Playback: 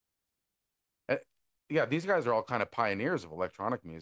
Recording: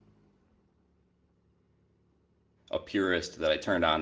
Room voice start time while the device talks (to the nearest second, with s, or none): 3 s